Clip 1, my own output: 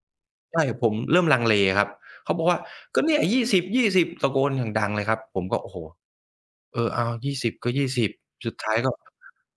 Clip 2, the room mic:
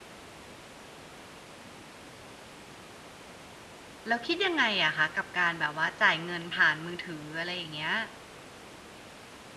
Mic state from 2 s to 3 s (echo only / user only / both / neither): neither